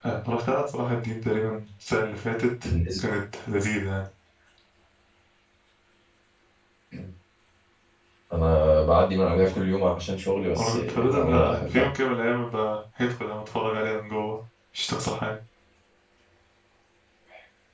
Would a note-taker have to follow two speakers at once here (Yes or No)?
Yes